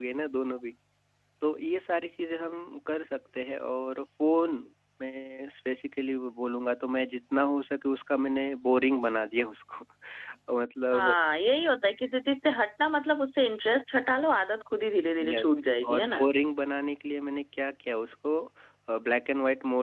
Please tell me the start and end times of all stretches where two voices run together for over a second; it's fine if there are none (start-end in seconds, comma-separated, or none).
none